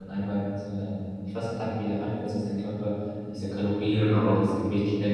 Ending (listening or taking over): listening